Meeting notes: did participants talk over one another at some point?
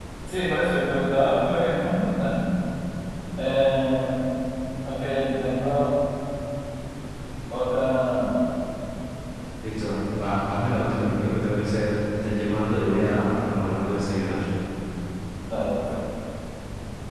No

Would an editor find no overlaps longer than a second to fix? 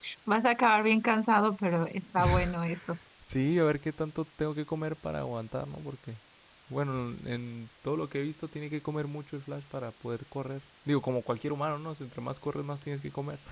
Yes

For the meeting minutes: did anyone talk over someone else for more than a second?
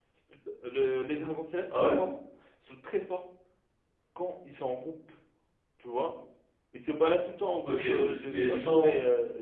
Yes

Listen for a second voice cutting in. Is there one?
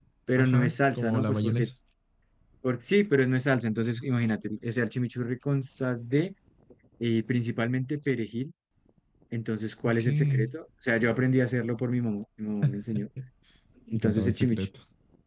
Yes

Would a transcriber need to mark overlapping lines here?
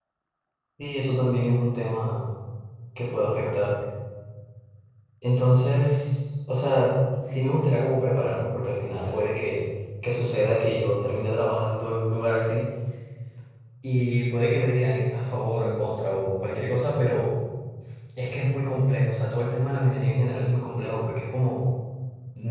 No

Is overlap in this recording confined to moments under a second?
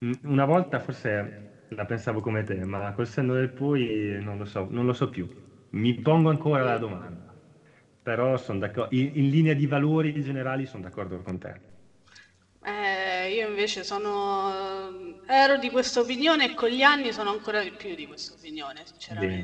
Yes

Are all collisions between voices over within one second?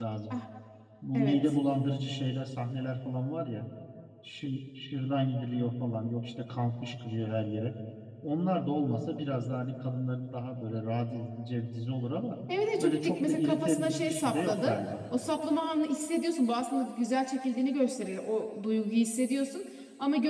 No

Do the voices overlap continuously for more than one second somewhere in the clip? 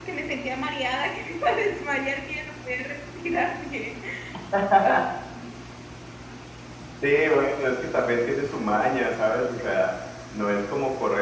No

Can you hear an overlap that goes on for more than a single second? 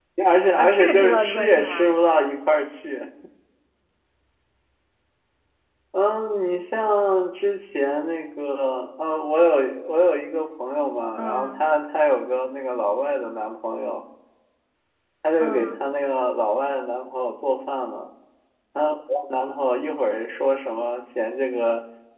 Yes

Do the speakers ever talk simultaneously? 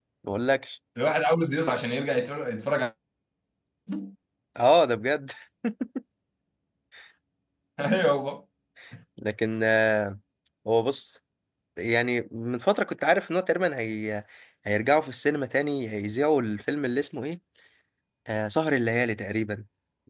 No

